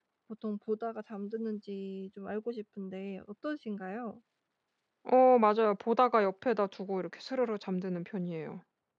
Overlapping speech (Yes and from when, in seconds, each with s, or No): No